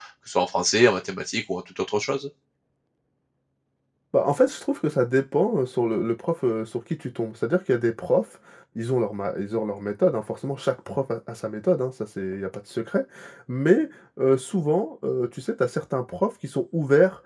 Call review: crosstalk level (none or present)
none